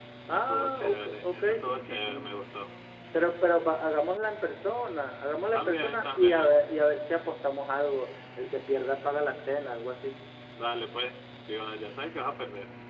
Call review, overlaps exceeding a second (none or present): present